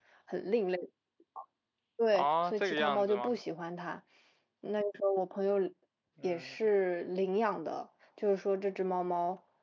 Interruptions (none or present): present